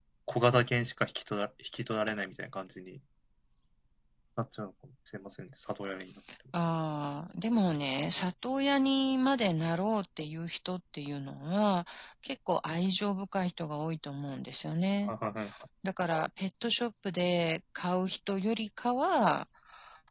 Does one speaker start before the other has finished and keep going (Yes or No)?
No